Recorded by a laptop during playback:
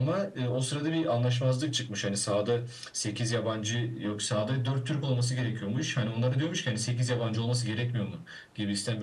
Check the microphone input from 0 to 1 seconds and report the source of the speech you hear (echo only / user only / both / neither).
echo only